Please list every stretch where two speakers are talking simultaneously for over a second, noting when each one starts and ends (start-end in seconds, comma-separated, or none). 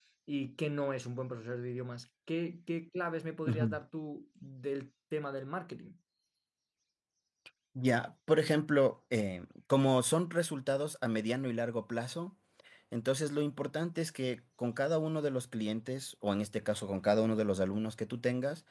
none